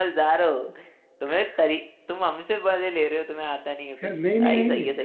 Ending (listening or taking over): taking over